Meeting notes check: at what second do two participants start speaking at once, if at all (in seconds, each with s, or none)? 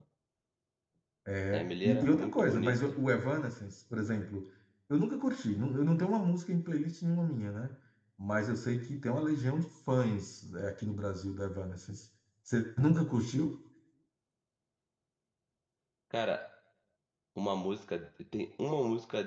1.5 s